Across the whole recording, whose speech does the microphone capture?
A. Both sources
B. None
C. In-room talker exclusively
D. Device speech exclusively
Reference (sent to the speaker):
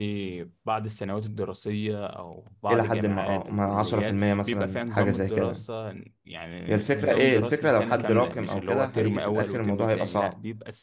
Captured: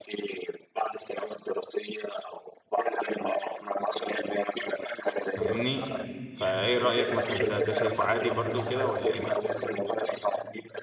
A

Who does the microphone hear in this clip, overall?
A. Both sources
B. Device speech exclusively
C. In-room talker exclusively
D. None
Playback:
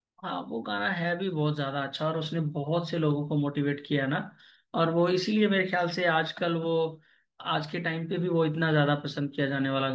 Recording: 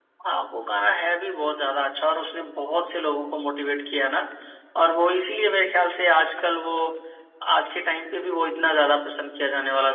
B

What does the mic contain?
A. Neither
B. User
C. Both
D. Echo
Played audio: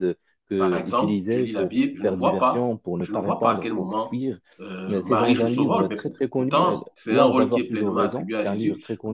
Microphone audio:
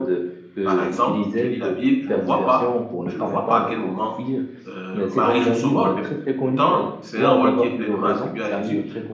D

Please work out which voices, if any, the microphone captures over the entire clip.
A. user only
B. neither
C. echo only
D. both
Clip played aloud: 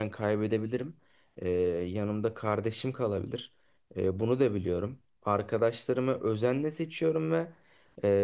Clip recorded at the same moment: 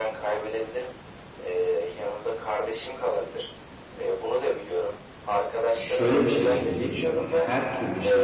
D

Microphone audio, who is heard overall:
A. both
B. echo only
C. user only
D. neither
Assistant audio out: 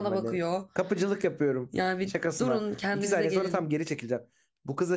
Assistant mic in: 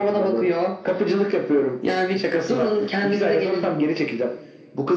B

